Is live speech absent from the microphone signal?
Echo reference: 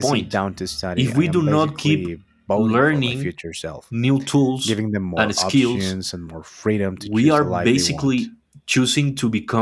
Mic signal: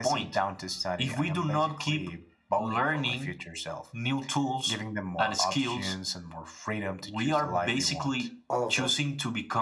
No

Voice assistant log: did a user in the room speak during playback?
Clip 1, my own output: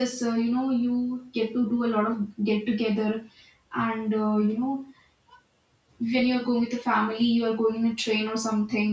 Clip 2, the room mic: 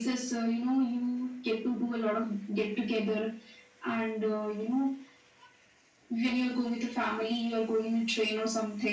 No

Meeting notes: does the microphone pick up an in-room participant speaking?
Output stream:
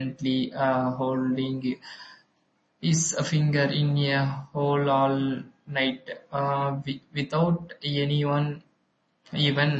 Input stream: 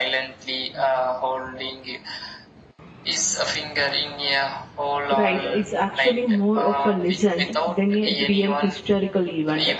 Yes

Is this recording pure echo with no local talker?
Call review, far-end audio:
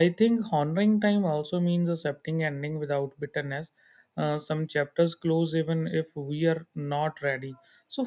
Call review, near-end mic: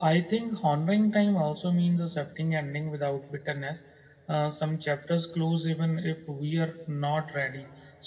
Yes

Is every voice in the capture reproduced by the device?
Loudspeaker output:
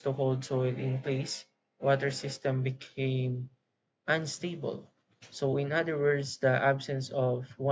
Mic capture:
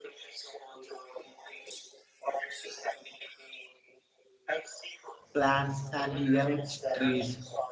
No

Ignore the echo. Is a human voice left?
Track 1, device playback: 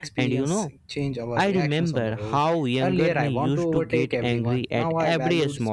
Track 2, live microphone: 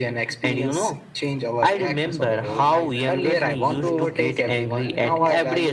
Yes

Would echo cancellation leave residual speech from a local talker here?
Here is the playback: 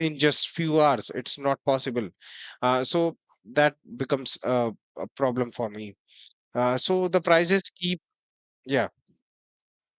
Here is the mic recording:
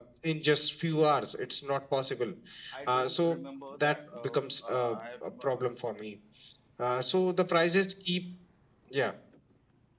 Yes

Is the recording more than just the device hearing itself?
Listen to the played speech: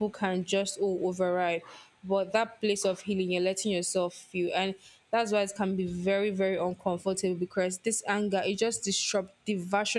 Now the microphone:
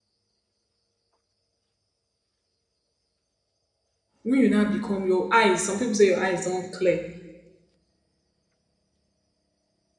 Yes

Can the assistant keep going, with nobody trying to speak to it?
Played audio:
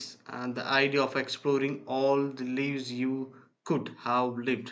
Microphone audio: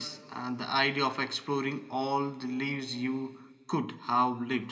Yes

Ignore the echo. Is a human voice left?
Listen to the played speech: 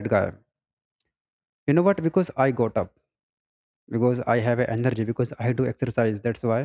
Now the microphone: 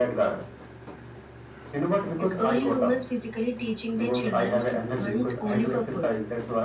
Yes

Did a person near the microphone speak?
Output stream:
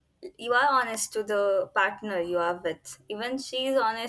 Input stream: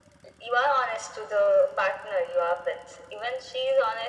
No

